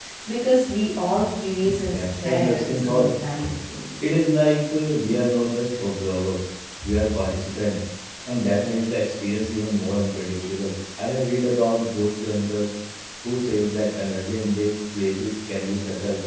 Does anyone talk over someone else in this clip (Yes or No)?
Yes